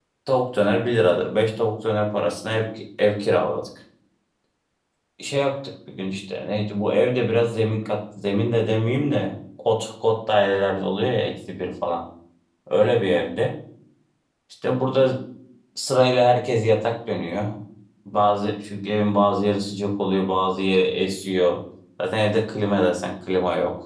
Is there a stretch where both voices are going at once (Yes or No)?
No